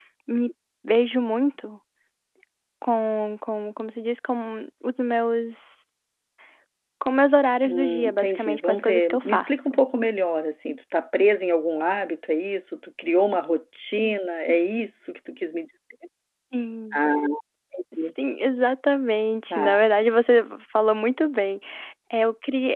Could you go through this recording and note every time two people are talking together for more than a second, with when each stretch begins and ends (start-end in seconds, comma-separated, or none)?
7.7-9.8